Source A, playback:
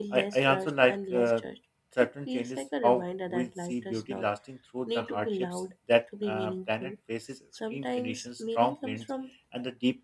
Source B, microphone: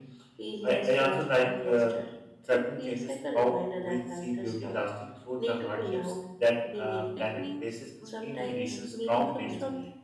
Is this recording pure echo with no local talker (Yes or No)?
No